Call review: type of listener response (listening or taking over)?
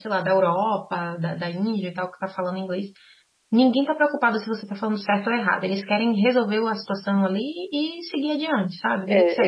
taking over